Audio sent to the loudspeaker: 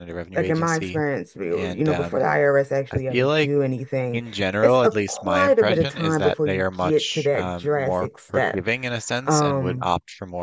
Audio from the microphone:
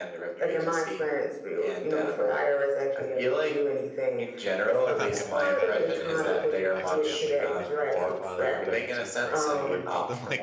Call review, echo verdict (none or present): present